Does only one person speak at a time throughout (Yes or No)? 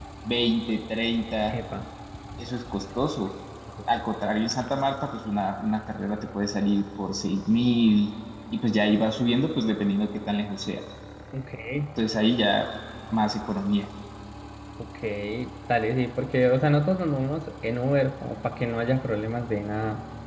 Yes